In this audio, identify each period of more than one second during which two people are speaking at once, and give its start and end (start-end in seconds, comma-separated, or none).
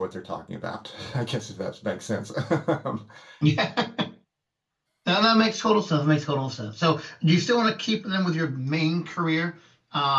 none